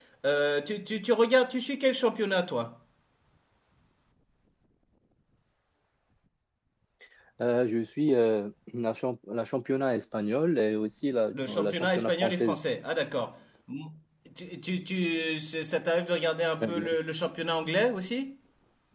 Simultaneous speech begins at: 11.3 s

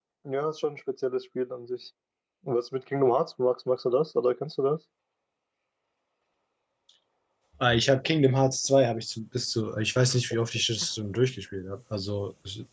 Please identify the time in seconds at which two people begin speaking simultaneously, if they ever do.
none

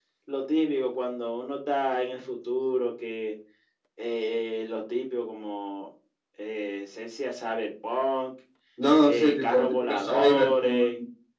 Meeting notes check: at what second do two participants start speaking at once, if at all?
9.0 s

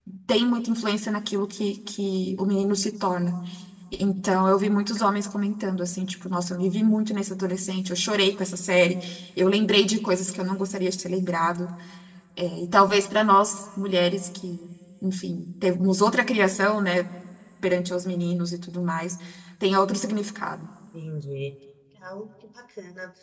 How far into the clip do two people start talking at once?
none

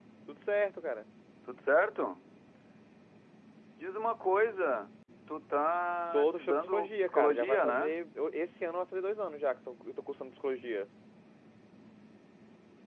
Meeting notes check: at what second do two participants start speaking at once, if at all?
6.1 s

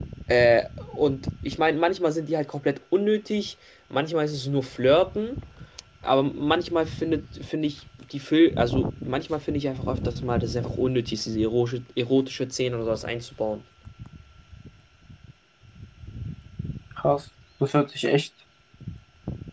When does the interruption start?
none

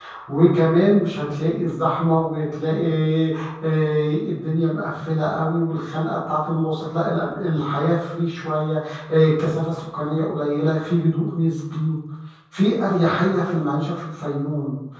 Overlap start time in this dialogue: none

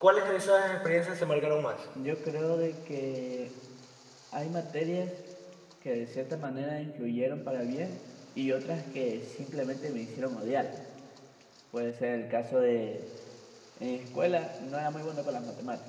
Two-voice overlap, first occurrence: none

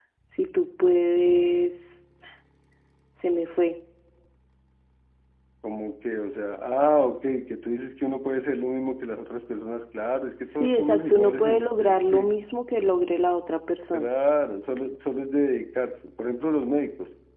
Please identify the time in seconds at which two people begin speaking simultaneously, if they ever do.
10.4 s

